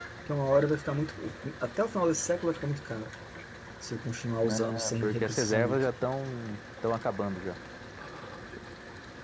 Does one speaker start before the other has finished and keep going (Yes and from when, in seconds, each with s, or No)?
Yes, from 4.5 s